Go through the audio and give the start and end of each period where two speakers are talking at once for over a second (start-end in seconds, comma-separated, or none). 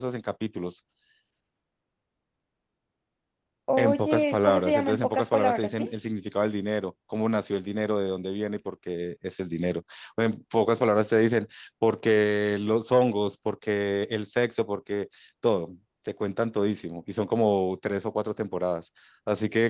3.8-5.9